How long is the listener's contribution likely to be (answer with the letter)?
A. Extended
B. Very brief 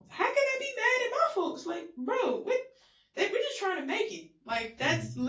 B